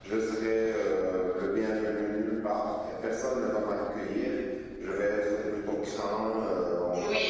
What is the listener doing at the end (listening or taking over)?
taking over